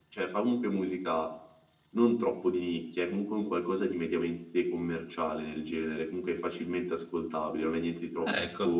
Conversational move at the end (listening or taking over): listening